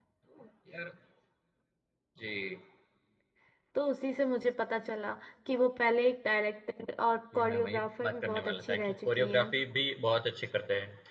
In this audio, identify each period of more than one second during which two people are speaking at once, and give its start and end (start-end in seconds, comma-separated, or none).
7.3-9.5